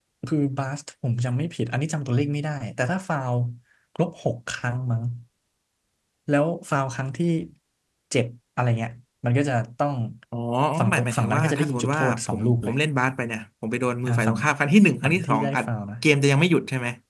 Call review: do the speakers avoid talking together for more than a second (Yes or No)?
No